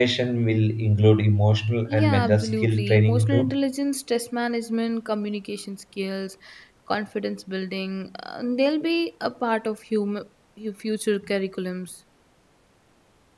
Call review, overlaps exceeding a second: present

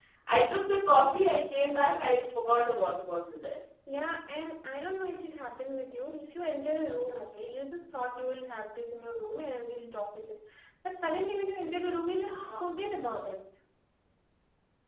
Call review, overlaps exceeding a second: none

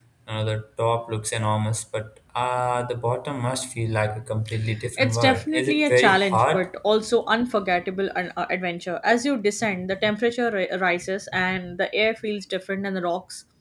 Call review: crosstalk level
present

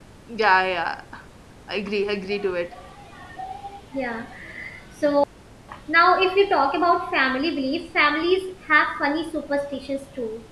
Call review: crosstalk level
none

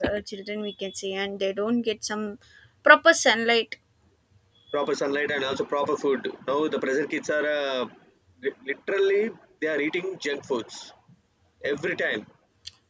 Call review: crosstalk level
none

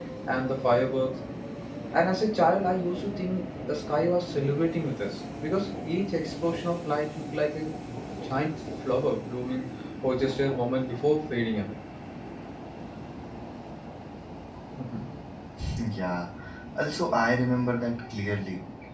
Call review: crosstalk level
none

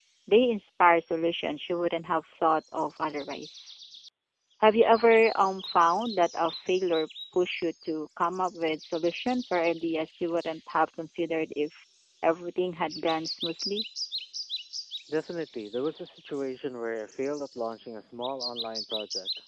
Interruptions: none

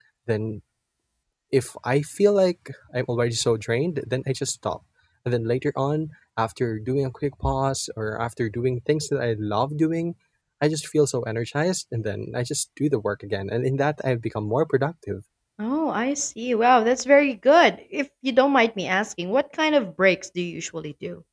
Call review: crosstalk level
none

